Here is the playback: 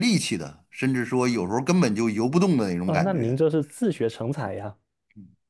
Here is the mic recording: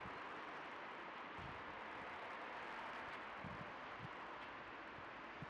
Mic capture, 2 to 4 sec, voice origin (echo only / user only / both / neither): neither